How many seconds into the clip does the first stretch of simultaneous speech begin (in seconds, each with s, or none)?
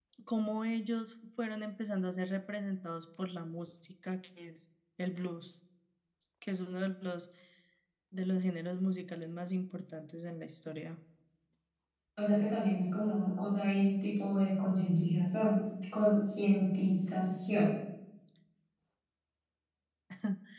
none